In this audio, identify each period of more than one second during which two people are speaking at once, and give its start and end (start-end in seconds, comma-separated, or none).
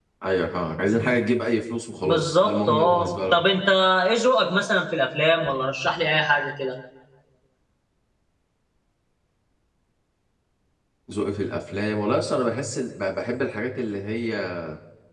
2.0-3.4